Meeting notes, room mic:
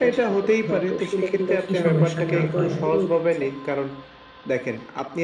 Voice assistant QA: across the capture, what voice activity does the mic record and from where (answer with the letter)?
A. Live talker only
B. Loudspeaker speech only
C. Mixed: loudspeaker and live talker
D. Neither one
C